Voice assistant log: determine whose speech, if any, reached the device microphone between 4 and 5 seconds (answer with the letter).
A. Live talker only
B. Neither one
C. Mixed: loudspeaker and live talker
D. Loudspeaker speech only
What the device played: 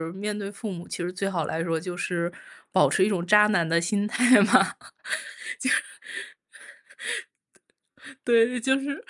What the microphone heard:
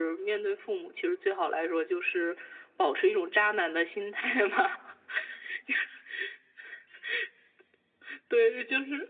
D